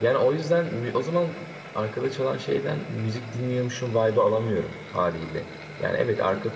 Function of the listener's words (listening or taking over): listening